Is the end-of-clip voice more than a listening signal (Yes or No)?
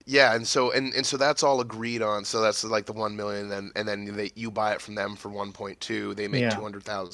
No